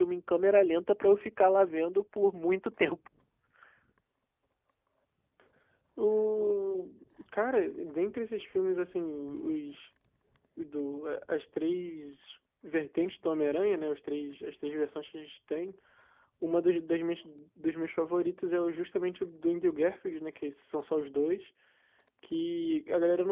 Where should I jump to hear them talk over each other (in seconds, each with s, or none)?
none